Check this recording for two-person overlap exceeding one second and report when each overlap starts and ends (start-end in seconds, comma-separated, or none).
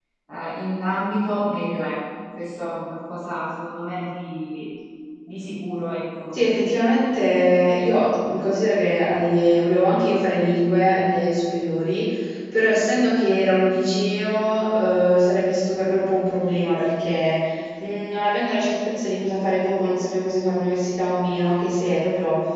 none